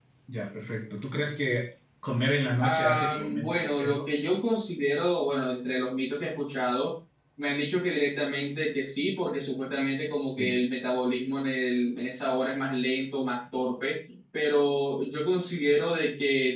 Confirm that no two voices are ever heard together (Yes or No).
No